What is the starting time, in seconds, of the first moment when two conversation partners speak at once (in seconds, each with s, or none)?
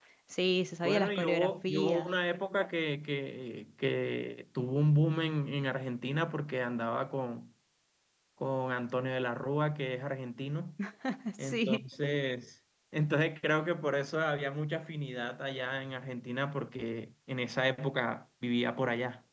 0.8 s